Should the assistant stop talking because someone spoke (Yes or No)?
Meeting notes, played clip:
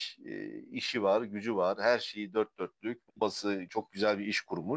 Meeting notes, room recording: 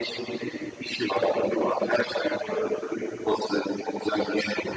No